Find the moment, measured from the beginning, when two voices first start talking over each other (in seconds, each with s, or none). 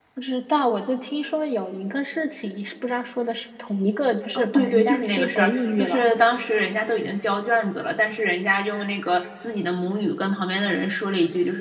4.4 s